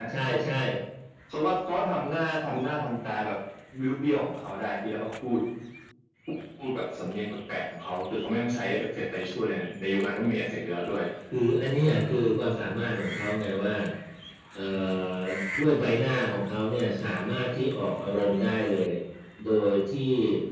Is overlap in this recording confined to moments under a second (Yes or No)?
Yes